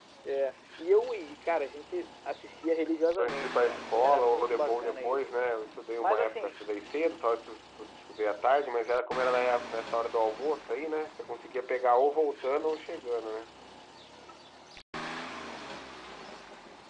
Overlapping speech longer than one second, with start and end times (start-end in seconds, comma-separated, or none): 3.2-5.3